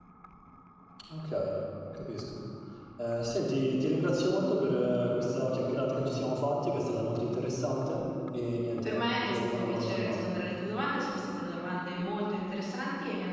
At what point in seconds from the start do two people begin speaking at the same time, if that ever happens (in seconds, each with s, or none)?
8.8 s